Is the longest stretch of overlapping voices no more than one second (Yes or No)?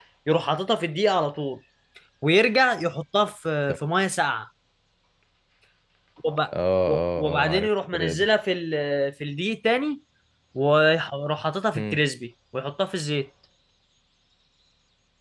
No